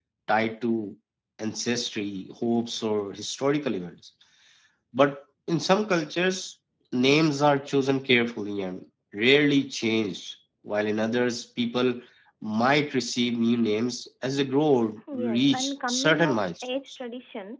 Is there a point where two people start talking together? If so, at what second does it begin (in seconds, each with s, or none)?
15.1 s